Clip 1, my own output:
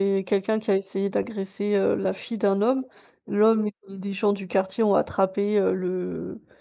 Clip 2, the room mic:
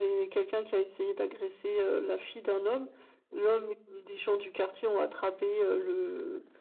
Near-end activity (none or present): none